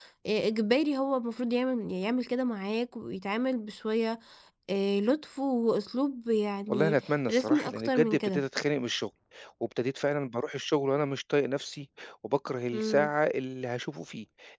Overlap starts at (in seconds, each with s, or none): 6.7 s